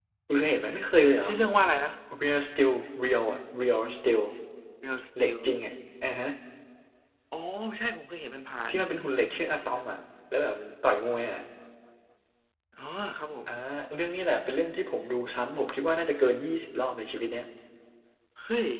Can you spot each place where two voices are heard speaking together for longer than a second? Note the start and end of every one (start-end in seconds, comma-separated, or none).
none